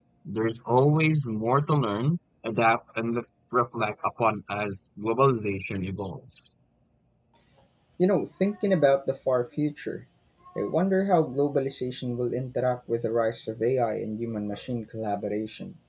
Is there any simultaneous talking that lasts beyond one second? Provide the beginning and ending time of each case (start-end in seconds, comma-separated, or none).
none